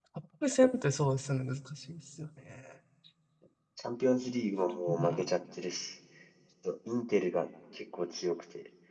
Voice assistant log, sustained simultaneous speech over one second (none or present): none